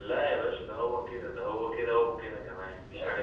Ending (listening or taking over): taking over